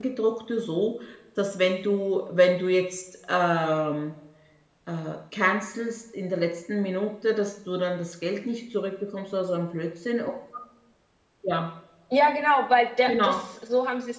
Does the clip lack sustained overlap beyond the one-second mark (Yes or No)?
Yes